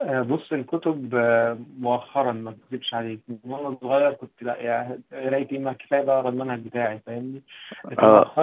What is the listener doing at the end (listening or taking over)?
listening